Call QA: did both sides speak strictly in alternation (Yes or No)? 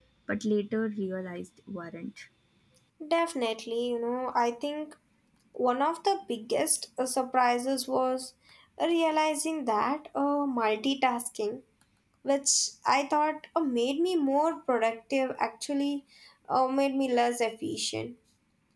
Yes